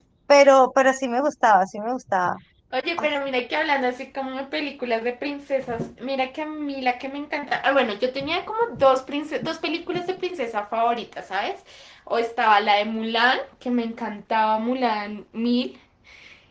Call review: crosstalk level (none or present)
none